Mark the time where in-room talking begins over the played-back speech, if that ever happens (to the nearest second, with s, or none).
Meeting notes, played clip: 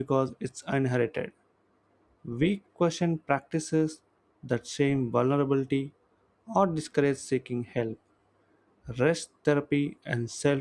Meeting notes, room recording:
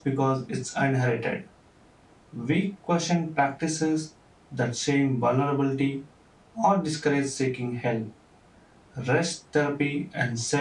none